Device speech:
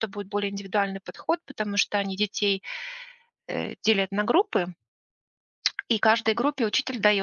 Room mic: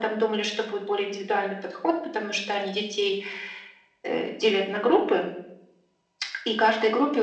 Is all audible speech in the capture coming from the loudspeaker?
Yes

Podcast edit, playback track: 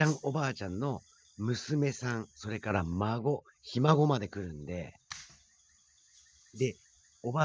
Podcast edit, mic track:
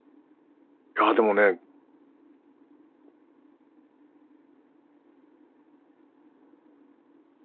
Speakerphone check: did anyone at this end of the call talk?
Yes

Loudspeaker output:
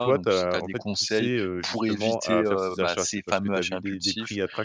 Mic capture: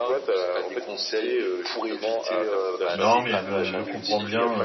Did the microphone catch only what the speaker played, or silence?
No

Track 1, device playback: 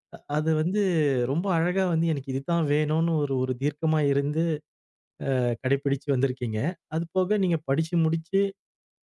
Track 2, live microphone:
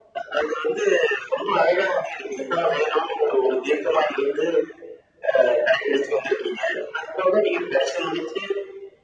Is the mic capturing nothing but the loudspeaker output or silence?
Yes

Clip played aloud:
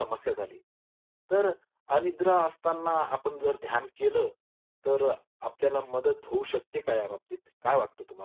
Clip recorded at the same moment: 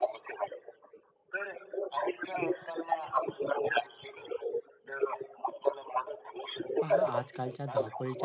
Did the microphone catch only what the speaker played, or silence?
No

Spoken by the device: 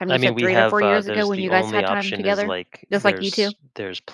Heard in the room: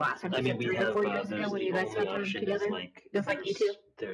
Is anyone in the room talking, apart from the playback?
No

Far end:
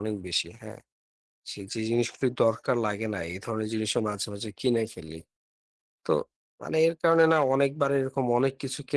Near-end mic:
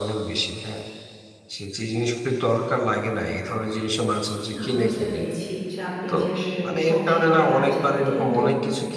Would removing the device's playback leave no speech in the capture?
No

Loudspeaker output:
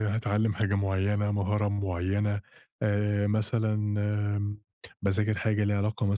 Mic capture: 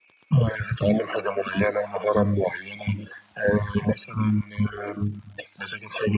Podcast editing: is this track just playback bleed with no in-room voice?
Yes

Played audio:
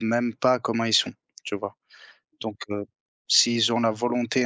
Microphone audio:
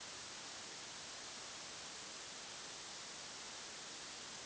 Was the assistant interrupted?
No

